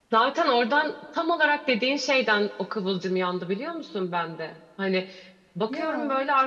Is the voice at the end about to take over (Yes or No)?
No